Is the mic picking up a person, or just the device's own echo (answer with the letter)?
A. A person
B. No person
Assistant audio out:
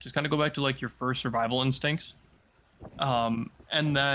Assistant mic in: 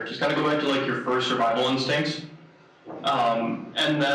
B